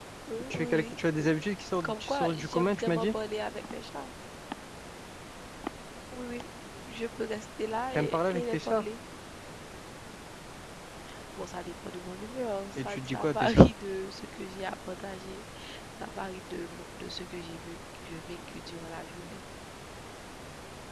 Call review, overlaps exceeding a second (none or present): present